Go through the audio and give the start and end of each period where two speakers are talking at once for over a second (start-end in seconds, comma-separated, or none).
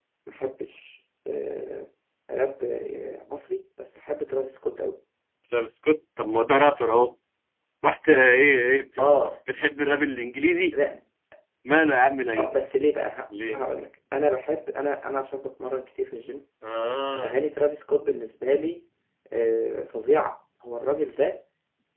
none